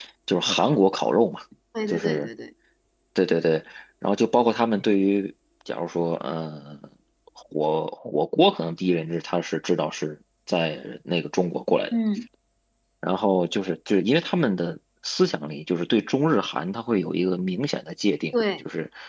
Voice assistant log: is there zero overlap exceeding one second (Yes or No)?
Yes